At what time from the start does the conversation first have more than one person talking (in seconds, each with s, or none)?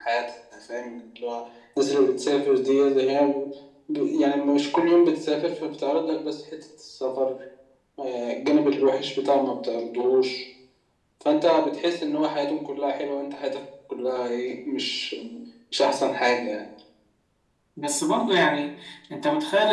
none